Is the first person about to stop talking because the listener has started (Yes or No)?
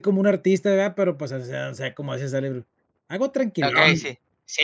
Yes